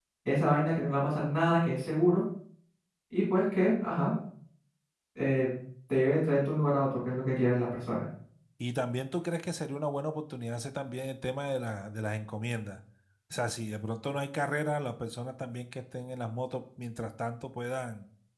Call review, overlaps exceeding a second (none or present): none